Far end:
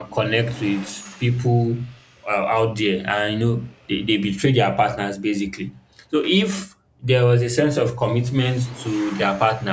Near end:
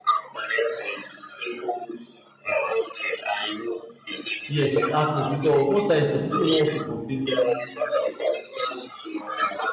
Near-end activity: present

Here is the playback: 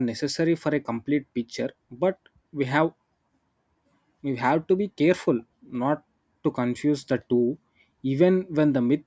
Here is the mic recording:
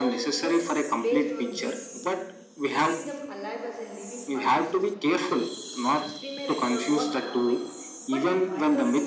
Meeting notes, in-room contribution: present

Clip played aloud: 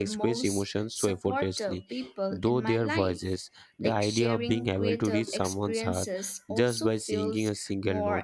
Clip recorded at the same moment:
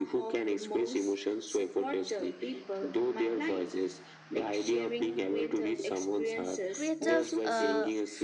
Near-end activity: present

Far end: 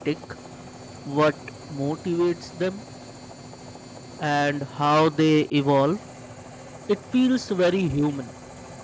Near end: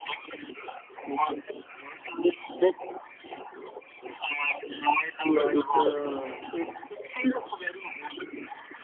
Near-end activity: present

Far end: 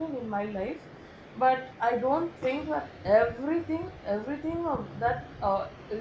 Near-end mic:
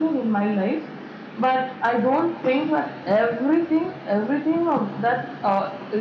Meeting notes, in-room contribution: none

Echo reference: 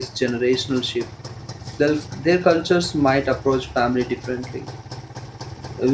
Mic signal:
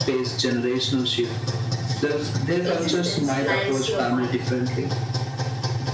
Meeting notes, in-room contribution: present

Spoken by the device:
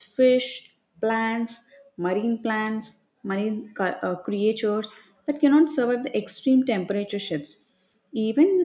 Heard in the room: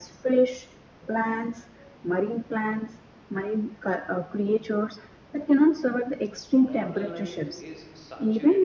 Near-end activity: present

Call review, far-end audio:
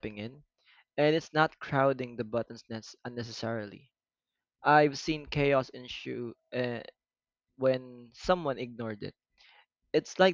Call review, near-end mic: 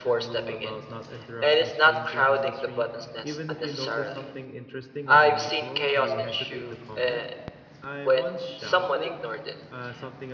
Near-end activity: present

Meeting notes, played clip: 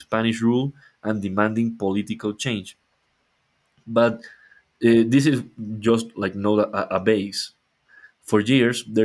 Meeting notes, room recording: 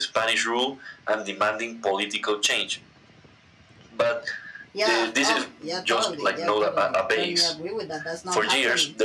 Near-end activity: present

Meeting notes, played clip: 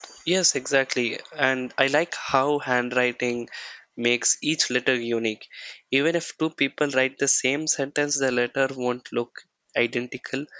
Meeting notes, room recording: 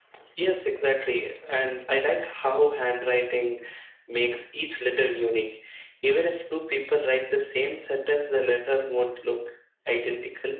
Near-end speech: none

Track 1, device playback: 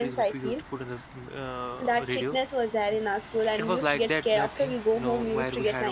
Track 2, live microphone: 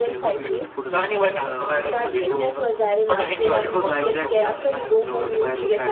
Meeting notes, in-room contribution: present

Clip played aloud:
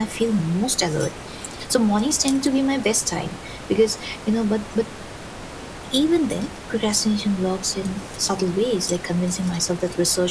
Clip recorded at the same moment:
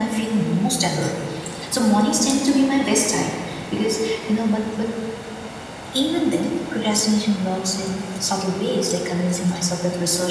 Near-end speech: none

